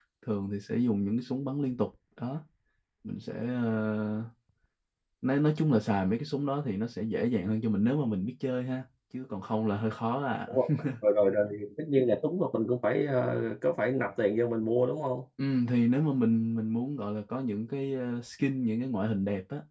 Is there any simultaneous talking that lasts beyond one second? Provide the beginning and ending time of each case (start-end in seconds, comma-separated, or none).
none